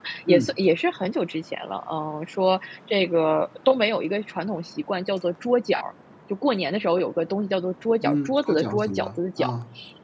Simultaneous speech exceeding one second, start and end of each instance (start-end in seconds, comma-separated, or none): 8.0-9.4